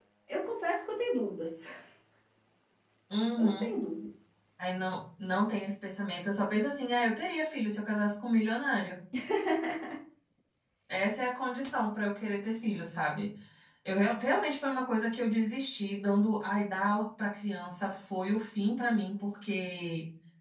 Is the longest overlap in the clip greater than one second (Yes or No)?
No